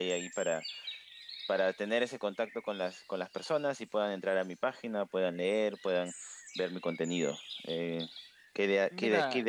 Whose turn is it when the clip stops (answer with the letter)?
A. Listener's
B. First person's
B